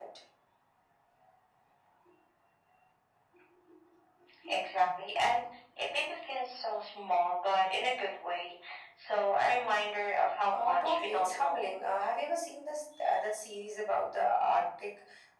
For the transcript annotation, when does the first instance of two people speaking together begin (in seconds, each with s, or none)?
10.5 s